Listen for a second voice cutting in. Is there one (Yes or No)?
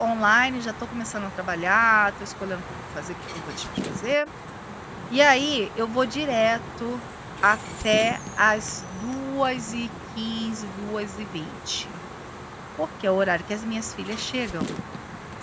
No